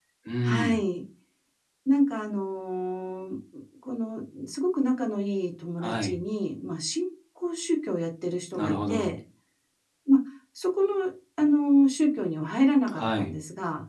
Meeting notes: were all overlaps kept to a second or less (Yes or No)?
Yes